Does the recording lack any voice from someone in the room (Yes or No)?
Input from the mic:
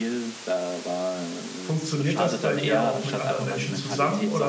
No